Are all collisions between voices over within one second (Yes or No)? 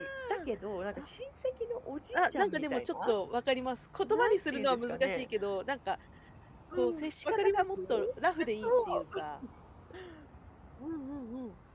No